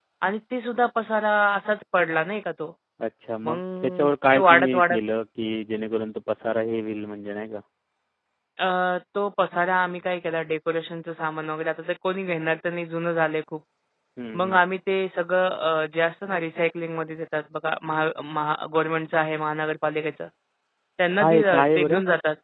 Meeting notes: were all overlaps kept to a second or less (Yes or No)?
No